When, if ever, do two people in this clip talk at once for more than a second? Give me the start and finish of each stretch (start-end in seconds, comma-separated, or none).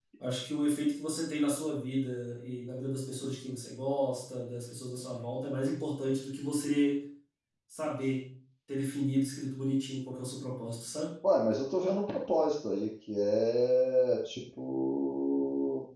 none